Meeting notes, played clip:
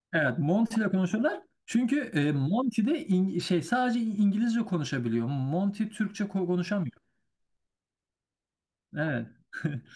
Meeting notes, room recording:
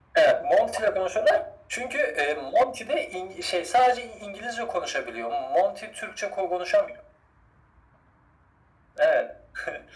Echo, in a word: present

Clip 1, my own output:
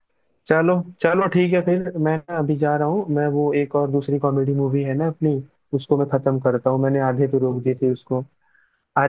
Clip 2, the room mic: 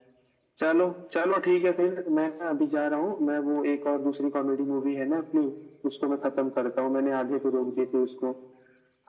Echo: present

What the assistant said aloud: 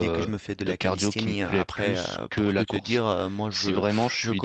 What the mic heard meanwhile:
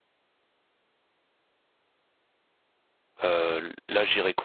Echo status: none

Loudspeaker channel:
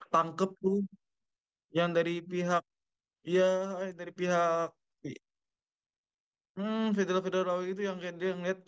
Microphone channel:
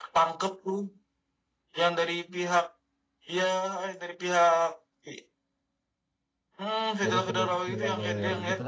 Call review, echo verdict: present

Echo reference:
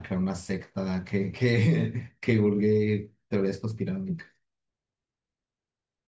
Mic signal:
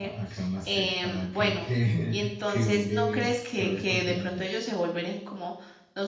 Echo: present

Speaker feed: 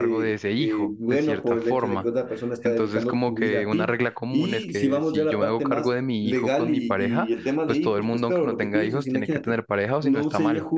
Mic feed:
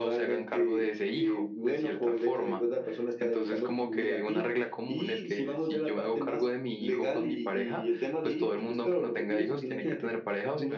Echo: present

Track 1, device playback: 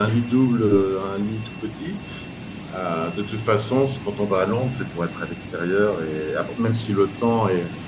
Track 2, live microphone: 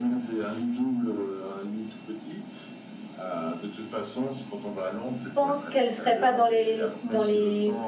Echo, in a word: present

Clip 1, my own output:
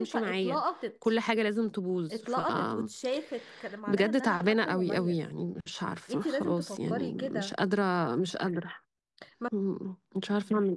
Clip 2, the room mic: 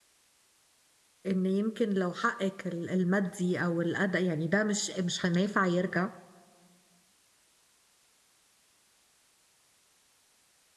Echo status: none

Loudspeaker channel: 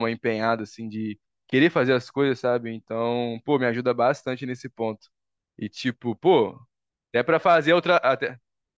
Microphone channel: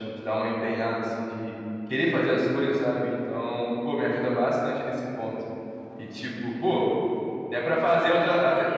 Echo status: present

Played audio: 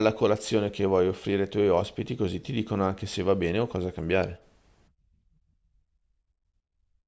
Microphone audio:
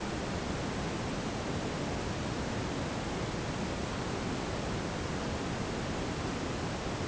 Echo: none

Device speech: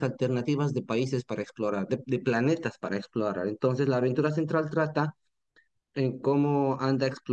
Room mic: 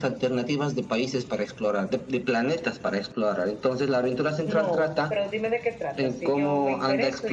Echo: present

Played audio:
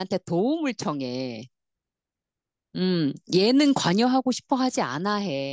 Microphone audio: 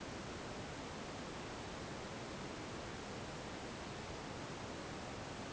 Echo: none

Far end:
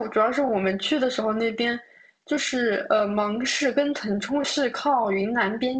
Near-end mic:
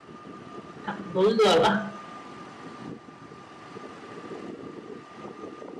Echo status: none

